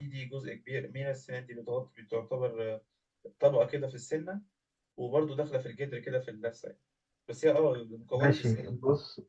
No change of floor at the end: No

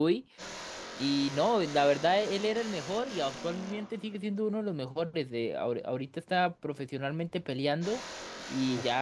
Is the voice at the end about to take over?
No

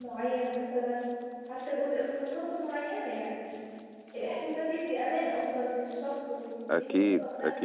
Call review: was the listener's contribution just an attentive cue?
No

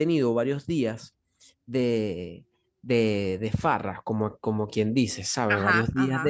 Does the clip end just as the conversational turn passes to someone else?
No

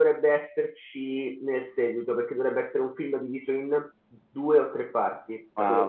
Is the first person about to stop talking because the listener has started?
Yes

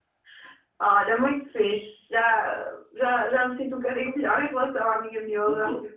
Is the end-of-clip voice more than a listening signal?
No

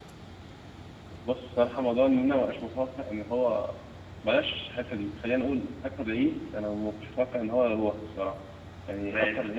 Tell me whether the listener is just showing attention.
Yes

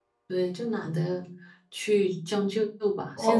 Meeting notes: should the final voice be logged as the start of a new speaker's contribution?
Yes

